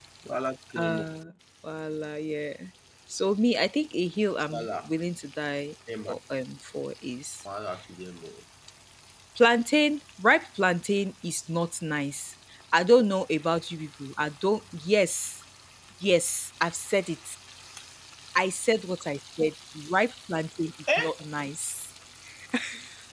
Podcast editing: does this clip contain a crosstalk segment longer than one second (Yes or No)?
No